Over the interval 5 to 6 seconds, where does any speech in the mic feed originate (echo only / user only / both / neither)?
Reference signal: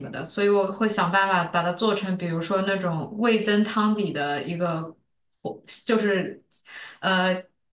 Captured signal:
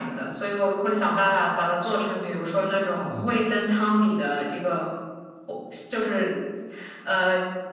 echo only